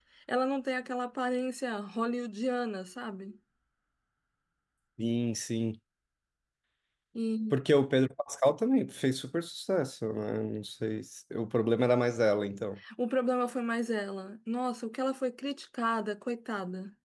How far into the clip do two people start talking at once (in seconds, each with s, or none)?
none